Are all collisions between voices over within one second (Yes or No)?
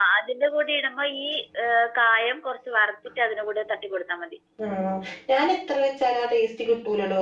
Yes